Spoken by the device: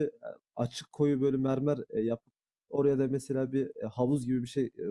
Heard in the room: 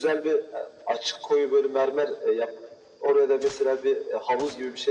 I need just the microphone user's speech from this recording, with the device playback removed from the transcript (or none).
none